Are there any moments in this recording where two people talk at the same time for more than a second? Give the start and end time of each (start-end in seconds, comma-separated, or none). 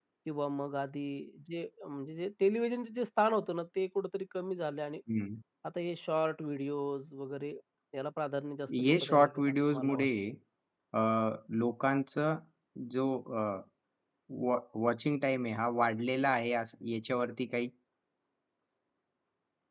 8.8-10.1